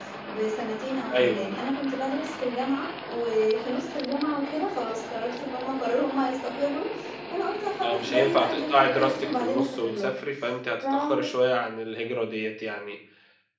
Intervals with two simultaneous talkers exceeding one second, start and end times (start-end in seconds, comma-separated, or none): 7.8-10.1